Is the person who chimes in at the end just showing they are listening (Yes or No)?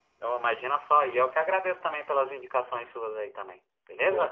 No